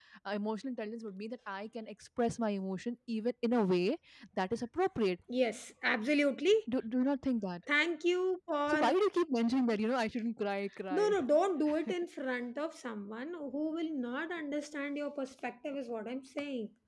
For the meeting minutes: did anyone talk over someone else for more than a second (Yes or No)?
No